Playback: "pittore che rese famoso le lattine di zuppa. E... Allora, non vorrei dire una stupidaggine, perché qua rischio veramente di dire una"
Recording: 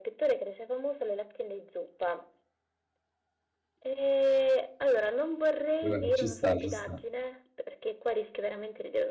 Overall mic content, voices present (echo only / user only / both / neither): both